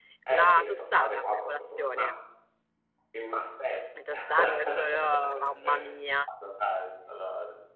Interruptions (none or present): present